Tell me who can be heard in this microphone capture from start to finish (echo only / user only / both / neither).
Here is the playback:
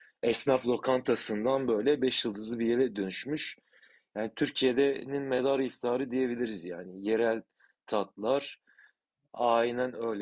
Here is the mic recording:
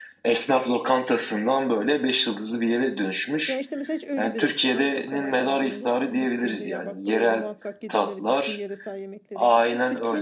both